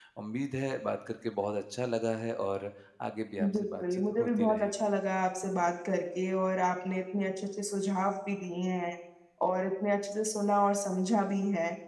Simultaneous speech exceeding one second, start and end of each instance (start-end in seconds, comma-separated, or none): 3.4-4.9